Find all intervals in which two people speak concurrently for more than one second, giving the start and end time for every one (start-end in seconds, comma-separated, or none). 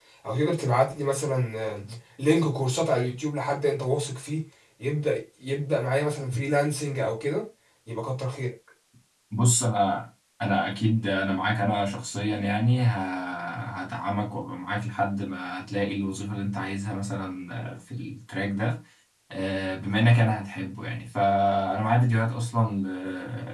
none